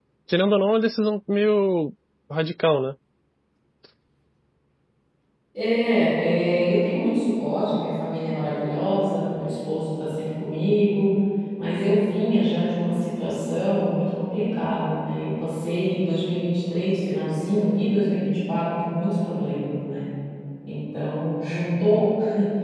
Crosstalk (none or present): none